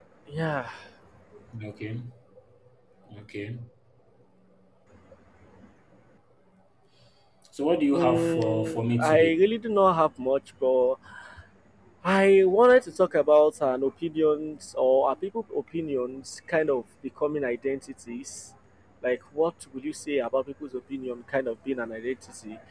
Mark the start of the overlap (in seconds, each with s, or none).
7.9 s